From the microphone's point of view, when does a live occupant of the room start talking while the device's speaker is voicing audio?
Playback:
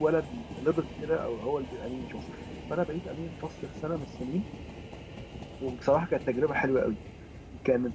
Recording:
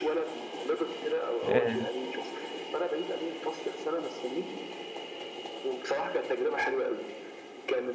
1.4 s

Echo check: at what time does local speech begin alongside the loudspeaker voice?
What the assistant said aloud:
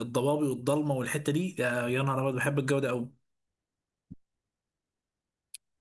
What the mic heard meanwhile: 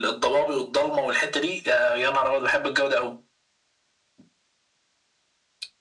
none

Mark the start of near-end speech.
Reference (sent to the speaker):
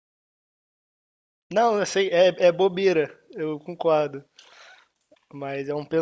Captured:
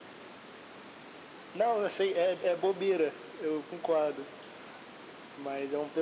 none

